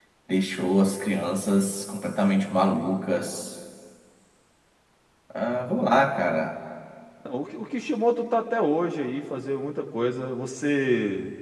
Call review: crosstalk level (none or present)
none